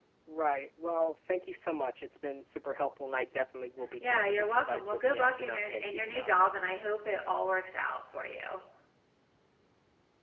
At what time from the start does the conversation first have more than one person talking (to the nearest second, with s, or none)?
4 s